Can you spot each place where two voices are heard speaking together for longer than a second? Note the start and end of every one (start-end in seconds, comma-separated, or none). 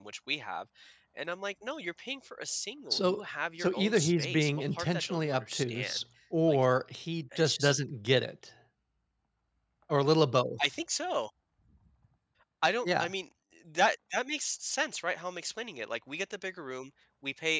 3.6-6.0